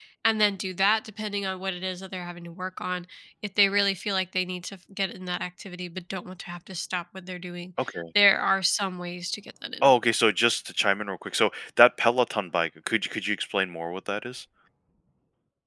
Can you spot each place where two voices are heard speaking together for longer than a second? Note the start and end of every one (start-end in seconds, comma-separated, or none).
none